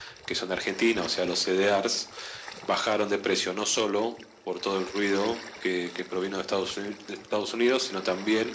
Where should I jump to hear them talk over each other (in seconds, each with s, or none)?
none